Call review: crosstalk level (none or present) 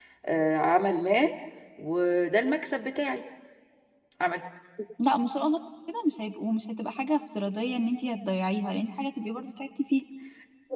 none